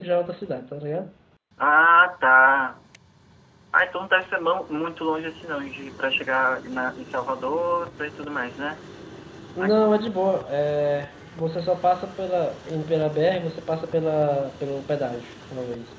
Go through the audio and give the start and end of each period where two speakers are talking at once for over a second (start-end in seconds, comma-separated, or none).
none